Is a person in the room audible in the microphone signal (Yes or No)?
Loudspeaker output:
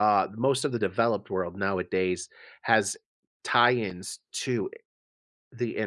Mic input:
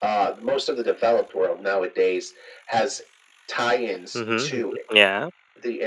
Yes